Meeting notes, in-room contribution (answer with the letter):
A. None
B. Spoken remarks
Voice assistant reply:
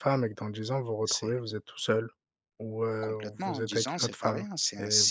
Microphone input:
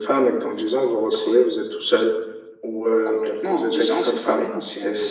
A